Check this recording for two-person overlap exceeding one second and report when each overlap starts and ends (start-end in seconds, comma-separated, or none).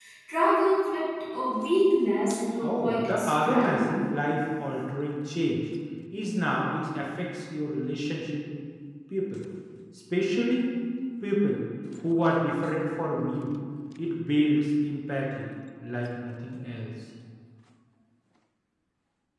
2.6-3.9